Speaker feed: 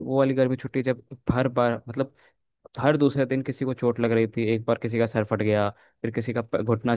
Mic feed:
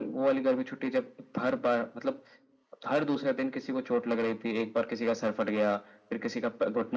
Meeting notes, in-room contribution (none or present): none